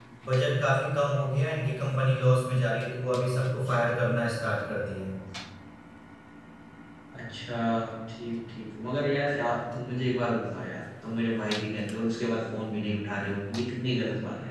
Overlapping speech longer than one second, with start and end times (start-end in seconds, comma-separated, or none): none